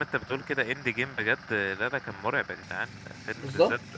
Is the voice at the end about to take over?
No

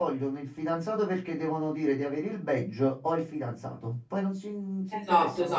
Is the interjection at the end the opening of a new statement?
Yes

